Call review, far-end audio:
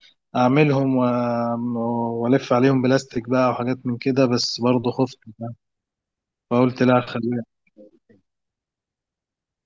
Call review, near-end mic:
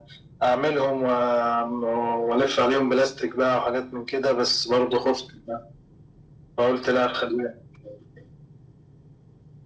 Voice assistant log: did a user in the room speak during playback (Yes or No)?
No